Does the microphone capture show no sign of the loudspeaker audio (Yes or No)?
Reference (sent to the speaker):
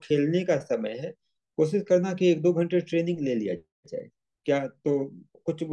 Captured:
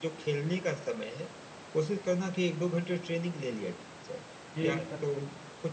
No